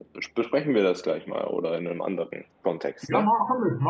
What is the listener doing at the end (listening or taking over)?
taking over